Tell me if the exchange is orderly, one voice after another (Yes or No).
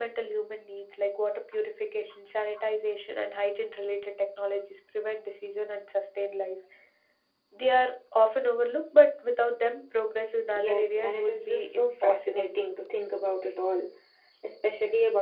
No